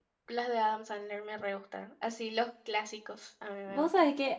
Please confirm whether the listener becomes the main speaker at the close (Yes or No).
Yes